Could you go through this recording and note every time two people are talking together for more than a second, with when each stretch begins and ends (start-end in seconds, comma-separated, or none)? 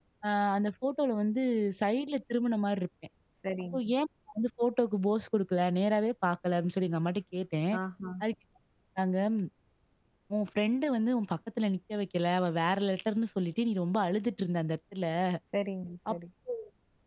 none